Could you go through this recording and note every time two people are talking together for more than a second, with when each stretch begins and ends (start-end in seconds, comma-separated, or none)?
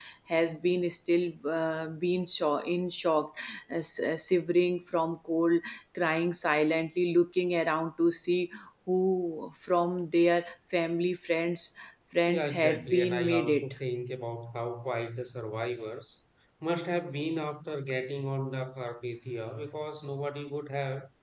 12.3-13.7